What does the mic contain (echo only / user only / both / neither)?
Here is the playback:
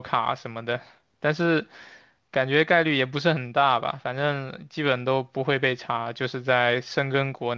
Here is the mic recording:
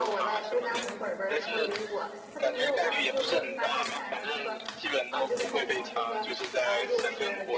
both